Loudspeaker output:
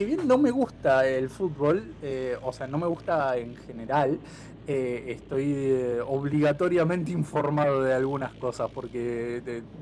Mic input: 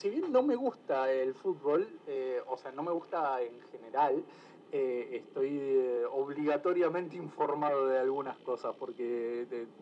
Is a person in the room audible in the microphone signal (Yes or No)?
No